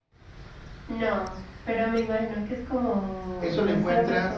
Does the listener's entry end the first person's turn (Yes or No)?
Yes